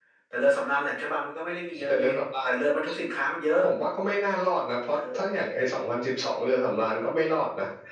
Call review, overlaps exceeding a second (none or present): none